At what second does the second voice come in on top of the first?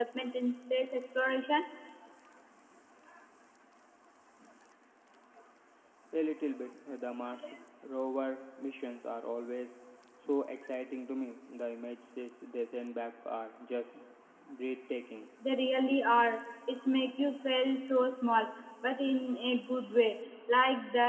none

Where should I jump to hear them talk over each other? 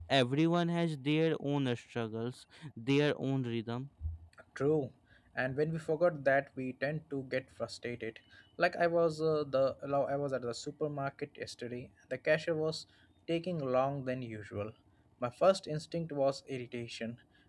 none

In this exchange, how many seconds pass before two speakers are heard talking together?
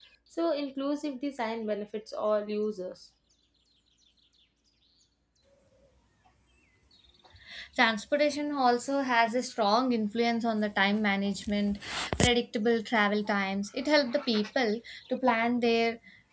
none

